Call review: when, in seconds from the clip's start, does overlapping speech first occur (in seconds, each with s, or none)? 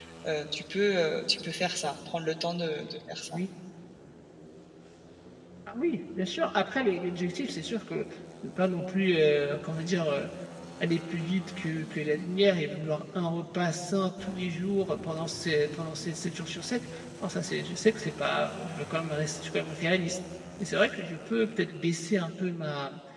none